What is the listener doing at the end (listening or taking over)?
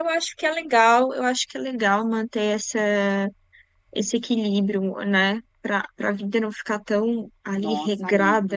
taking over